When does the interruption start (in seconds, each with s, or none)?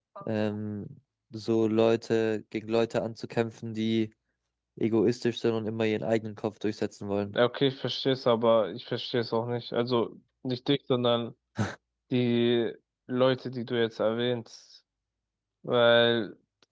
none